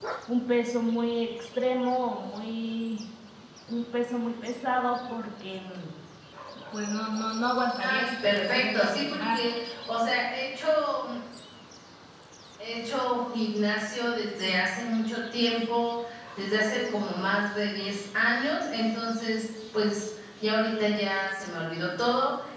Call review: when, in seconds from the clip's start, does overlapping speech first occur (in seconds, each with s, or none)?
7.8 s